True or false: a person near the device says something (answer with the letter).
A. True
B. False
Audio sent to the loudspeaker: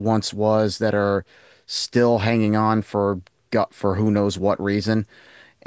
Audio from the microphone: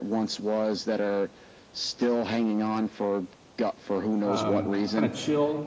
A